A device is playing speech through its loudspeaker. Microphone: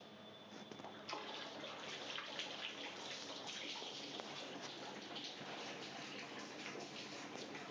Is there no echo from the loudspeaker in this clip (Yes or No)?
Yes